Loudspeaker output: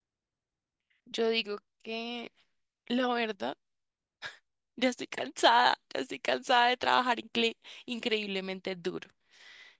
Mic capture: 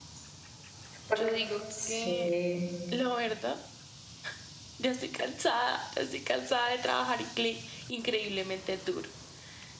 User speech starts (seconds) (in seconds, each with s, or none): 1.1 s